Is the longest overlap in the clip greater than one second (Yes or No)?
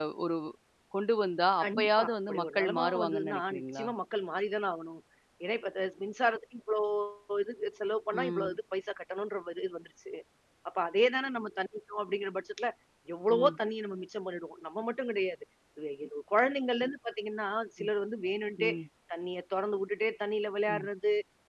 Yes